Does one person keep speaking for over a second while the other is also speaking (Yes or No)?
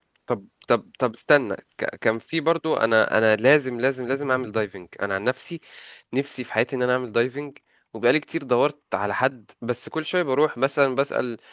No